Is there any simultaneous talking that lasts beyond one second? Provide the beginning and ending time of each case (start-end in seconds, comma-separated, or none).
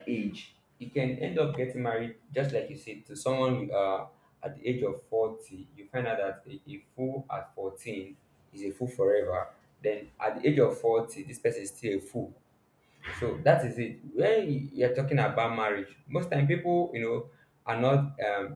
none